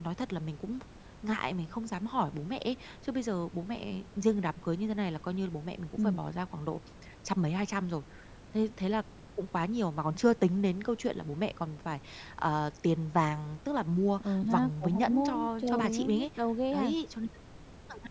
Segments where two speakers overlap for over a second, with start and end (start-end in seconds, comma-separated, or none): 14.3-16.2